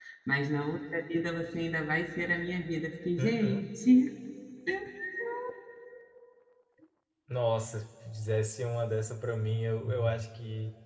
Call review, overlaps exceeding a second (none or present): none